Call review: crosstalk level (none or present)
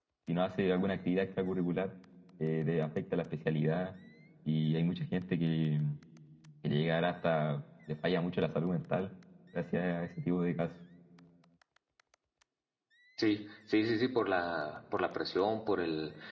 none